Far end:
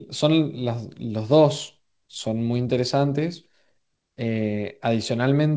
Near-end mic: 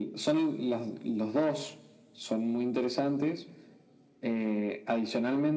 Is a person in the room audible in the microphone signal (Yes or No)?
No